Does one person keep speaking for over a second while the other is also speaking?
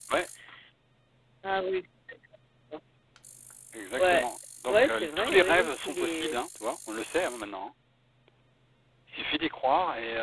Yes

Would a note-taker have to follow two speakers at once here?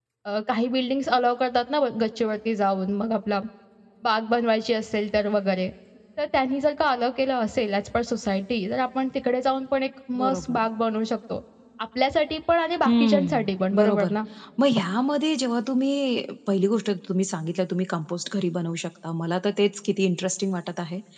Yes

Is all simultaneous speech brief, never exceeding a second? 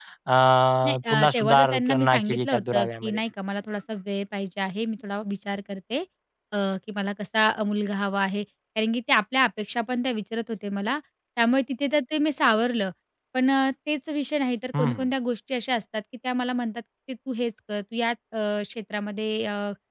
No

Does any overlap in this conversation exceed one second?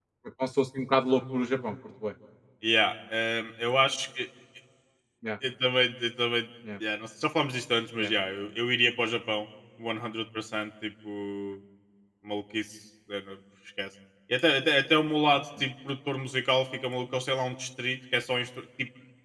No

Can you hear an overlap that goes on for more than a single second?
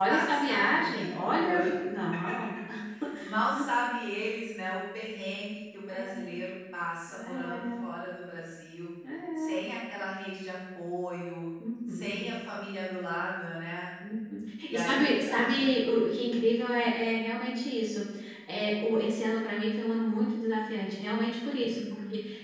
Yes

